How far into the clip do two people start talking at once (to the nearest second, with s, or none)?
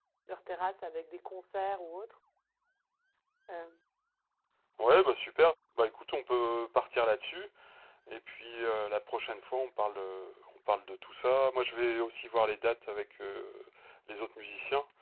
none